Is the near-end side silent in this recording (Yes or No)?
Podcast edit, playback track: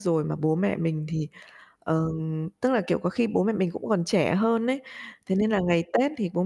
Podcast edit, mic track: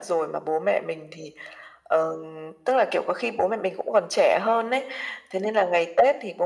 Yes